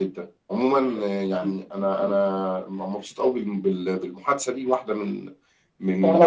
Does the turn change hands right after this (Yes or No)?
No